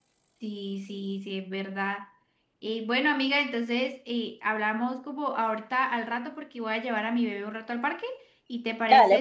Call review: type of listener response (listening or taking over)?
taking over